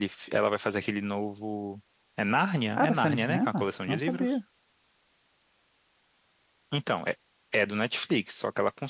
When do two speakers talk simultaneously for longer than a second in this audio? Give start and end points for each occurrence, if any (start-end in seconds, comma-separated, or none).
2.8-4.3